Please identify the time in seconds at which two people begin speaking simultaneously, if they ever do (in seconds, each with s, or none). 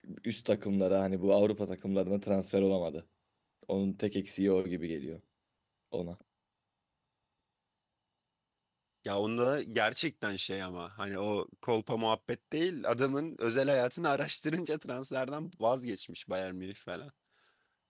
none